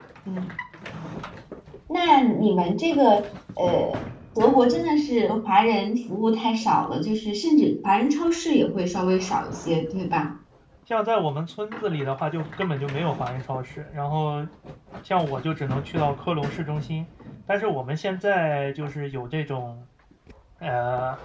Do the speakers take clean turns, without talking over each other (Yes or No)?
Yes